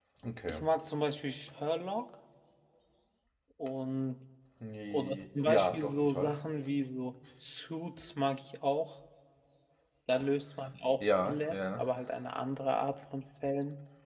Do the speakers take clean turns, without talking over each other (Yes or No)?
No